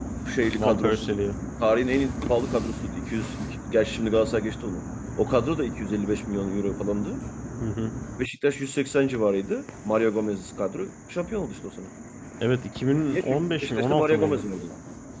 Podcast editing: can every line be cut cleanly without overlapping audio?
No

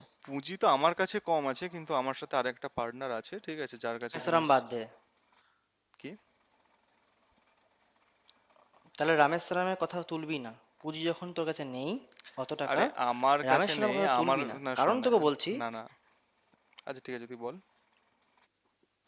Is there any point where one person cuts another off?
Yes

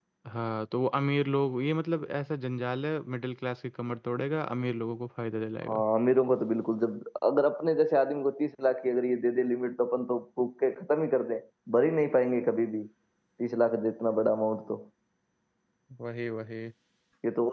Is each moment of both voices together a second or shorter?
Yes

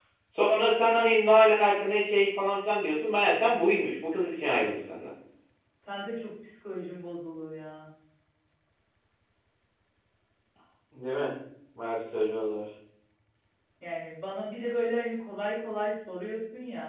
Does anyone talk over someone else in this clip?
No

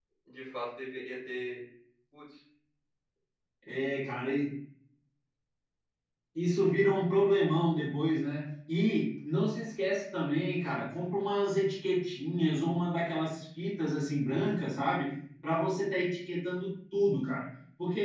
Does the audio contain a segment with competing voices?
No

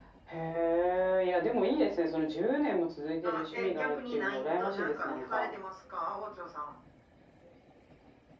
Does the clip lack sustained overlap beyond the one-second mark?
No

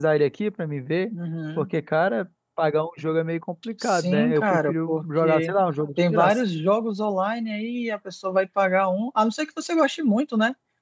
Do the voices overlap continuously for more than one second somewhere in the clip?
Yes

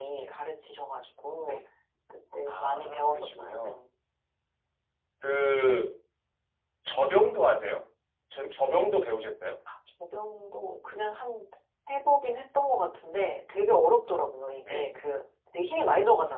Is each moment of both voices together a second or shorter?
No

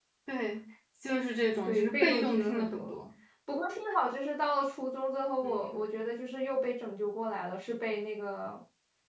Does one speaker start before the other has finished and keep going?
Yes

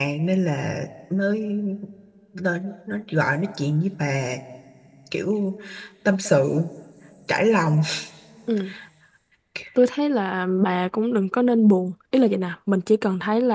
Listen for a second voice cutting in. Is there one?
No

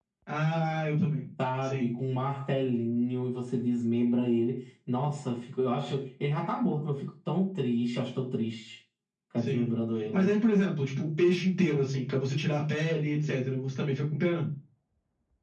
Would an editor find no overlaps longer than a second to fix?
Yes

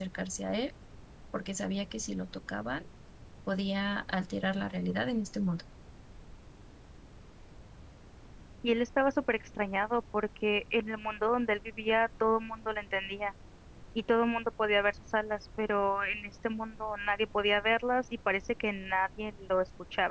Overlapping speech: No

